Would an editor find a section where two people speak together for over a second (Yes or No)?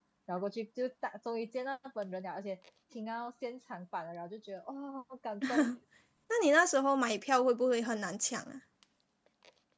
No